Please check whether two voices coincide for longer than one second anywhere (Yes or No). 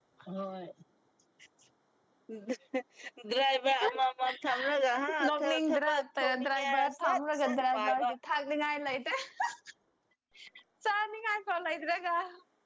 Yes